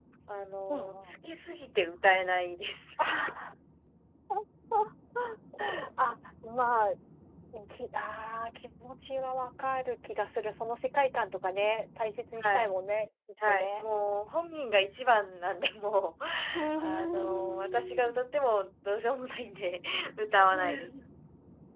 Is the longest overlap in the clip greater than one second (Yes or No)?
Yes